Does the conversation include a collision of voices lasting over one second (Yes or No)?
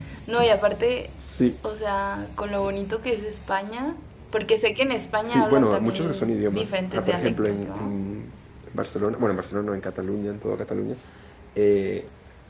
Yes